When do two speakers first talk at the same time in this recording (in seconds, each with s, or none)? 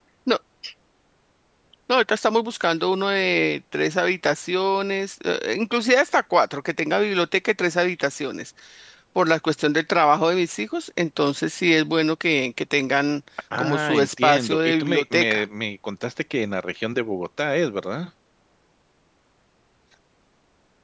13.5 s